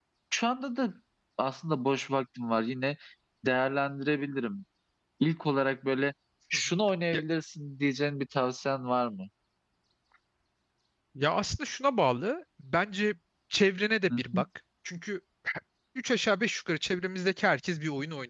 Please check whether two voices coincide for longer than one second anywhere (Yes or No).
No